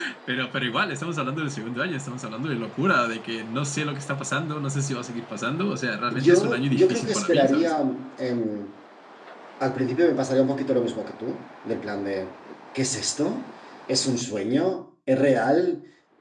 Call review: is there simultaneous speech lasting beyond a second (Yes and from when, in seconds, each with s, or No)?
Yes, from 6.1 s